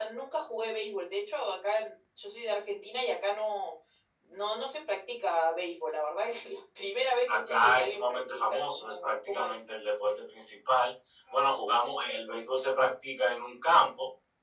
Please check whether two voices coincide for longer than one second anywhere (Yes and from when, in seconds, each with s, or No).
Yes, from 7.3 s